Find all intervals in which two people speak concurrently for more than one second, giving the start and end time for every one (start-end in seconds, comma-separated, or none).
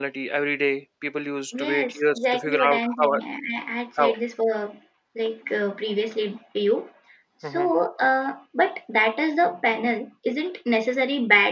1.6-3.1